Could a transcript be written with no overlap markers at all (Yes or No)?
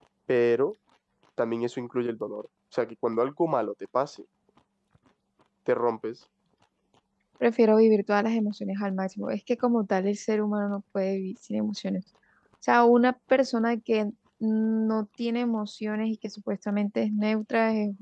Yes